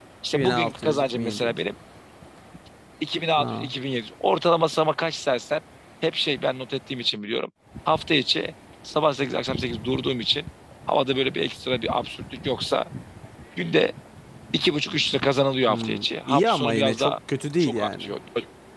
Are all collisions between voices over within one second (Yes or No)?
No